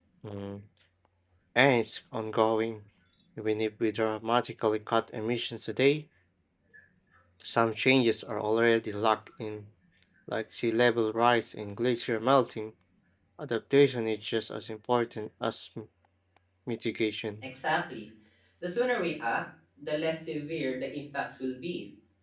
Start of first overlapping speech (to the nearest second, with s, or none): none